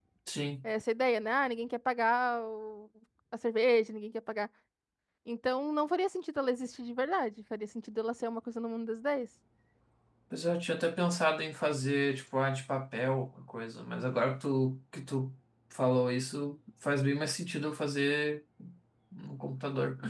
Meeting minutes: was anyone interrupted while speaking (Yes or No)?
No